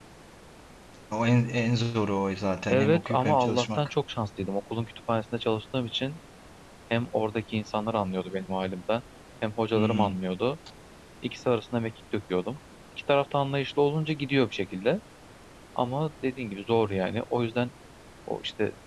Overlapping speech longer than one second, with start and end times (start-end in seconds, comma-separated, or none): 2.7-3.9